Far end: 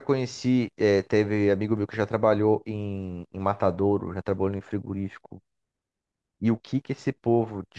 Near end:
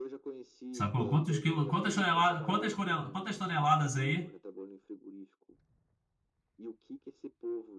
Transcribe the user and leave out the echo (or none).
Sacou? Quantos quilos quantas toneladas... Quantas, conel- quantas toneladas aí?